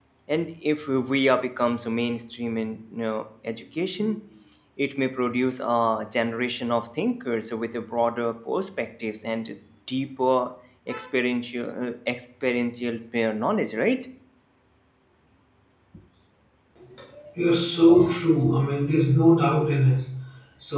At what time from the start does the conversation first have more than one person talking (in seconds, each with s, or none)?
none